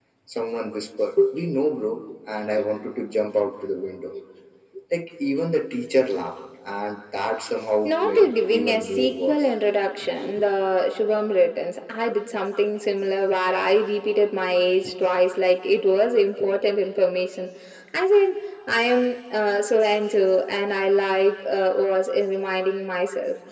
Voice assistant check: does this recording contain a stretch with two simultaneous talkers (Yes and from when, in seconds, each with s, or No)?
Yes, from 7.8 s